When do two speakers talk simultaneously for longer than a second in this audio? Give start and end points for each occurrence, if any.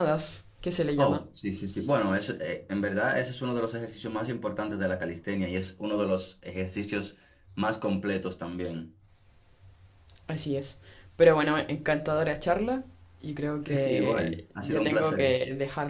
13.7-15.3

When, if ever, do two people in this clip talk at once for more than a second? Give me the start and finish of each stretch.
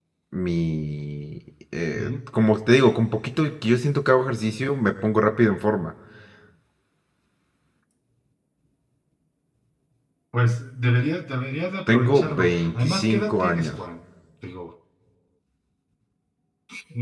11.9-13.8

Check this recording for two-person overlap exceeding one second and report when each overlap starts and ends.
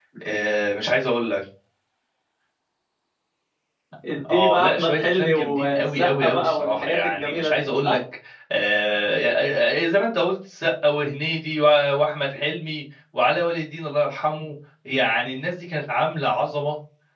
4.3-8.0

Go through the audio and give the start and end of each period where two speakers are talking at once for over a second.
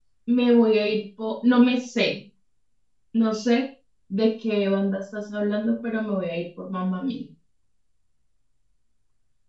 none

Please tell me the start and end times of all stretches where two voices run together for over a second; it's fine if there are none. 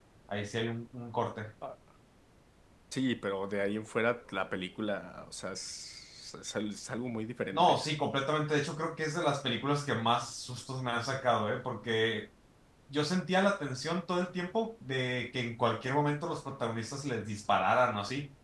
none

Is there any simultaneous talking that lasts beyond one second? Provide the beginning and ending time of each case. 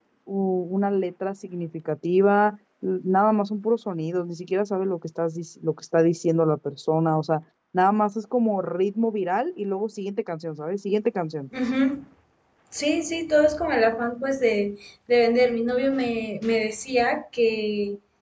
none

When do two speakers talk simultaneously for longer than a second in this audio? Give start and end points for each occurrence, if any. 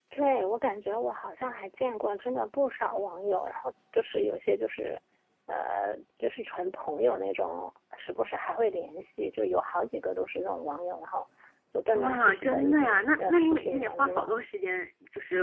11.9-14.3

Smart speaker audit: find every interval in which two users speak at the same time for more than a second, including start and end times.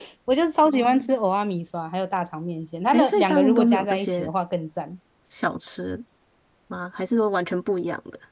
2.9-4.3

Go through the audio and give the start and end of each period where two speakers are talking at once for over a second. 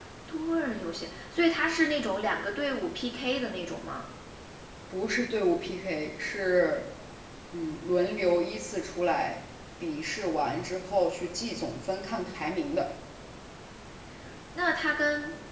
none

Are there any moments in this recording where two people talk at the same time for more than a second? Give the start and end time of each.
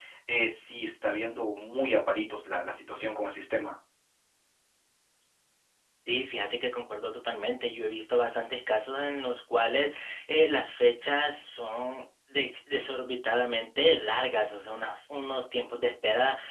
none

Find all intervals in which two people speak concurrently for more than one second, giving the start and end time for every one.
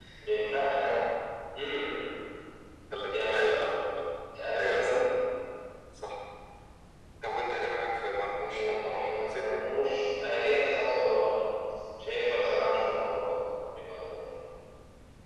8.4-9.7

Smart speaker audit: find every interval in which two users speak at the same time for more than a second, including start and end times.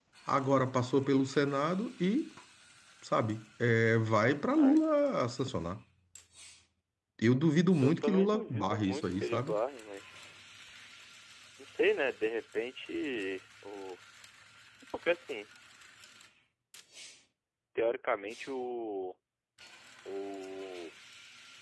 7.8-9.5

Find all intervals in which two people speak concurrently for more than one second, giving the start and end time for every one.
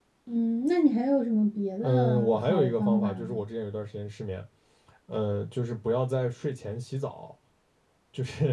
1.8-3.5

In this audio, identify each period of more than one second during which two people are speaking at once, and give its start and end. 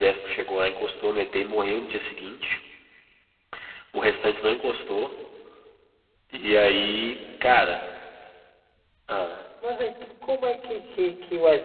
none

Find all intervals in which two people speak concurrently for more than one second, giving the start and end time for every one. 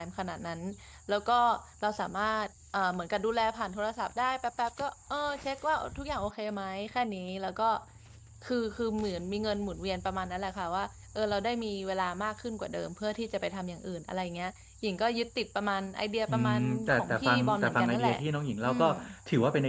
16.3-18.1

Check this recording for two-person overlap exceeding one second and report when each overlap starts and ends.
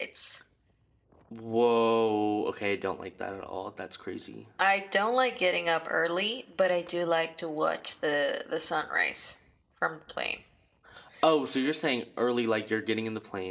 none

